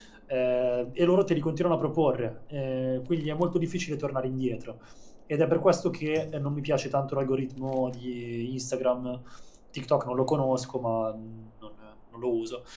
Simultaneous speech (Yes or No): No